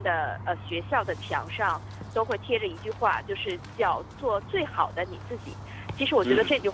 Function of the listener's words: listening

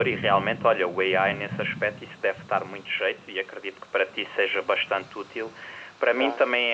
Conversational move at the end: listening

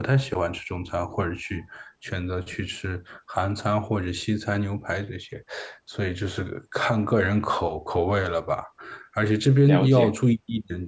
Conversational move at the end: listening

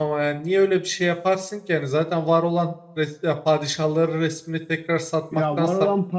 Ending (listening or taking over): taking over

